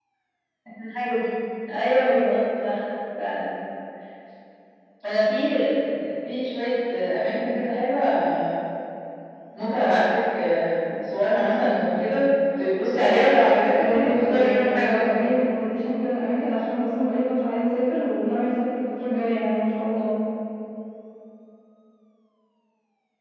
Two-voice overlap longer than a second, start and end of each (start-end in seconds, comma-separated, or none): 13.7-15.3